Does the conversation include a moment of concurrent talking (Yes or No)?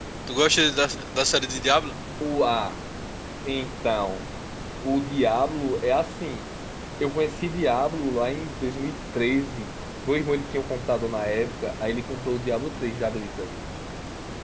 No